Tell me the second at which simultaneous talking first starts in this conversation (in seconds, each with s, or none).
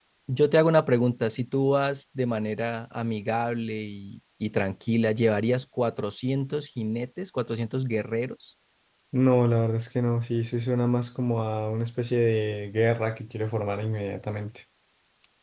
none